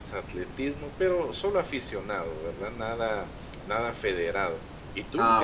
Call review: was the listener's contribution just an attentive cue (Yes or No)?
Yes